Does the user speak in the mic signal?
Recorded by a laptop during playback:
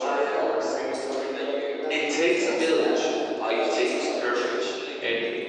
Yes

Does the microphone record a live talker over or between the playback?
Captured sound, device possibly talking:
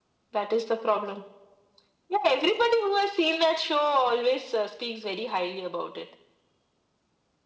No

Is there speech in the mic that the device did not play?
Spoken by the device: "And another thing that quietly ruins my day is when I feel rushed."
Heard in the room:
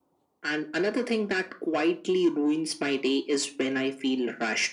No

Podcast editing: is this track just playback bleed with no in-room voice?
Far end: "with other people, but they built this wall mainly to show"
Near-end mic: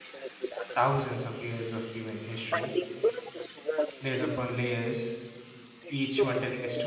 No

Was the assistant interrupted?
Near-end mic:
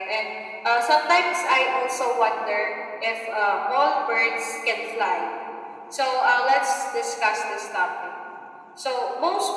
No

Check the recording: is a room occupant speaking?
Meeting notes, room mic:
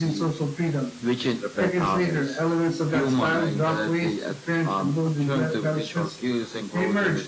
No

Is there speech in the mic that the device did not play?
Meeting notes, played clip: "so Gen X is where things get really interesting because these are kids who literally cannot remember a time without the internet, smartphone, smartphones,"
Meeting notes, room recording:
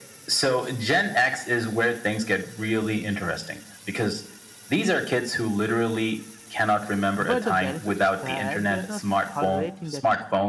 Yes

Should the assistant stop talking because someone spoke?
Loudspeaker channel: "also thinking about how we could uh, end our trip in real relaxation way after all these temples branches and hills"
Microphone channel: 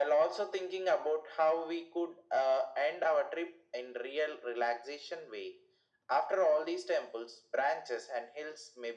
No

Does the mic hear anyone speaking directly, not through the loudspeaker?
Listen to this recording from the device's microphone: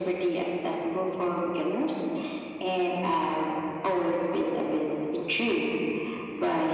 No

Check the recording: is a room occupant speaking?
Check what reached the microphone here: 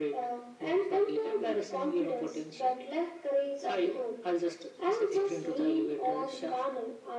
No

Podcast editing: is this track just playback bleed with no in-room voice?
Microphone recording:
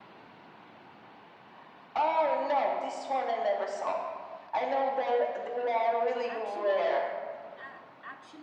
No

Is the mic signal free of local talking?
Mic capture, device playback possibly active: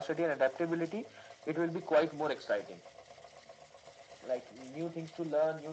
Yes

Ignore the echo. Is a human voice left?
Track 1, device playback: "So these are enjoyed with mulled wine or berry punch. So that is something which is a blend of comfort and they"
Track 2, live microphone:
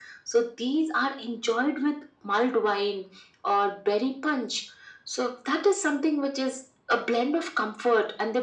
No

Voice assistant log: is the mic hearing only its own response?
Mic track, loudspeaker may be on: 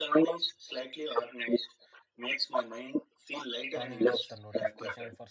No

